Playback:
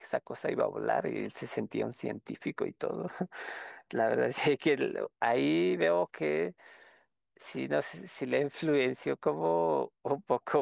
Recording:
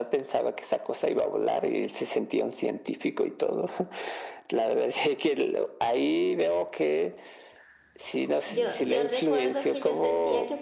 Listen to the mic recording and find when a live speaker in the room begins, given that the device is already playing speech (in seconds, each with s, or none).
8.5 s